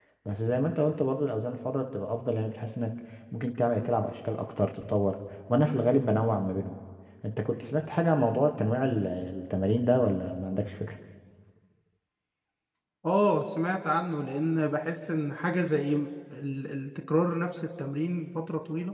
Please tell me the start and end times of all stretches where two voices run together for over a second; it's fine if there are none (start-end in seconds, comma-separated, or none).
none